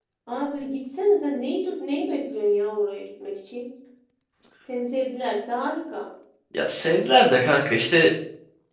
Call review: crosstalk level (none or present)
none